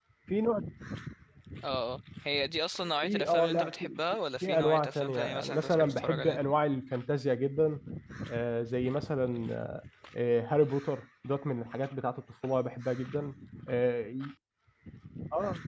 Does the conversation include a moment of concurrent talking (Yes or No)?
Yes